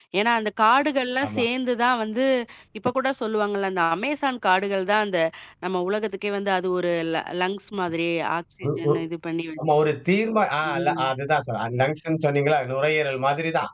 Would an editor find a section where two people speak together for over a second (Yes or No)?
No